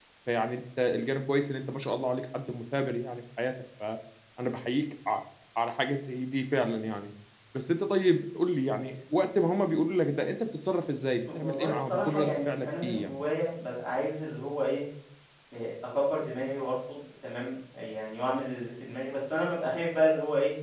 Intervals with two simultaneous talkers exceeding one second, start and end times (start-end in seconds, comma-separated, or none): 11.3-13.1